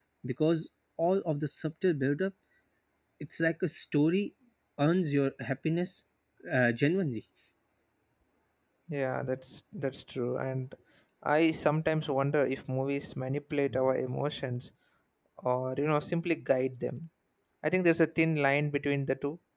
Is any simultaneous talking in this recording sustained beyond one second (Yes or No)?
No